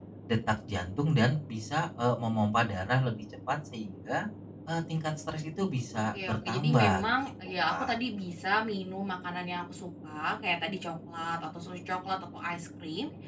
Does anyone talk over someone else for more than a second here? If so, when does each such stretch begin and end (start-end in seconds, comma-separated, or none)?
5.9-8.0